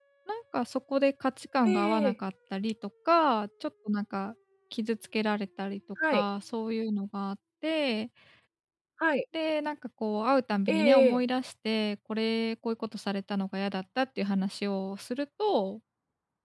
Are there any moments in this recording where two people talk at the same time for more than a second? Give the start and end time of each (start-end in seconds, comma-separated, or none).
none